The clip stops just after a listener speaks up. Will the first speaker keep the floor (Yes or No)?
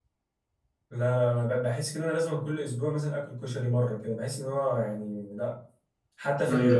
Yes